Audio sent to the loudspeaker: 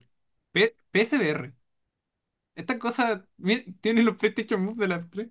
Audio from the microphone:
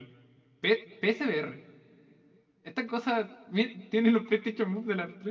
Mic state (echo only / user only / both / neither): echo only